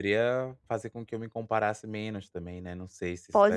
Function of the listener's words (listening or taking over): taking over